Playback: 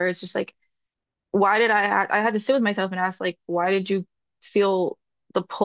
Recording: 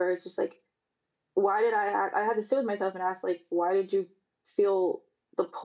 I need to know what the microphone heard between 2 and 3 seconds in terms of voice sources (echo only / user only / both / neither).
echo only